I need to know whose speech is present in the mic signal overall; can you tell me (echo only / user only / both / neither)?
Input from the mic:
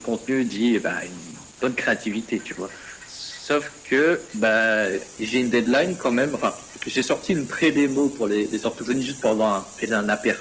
echo only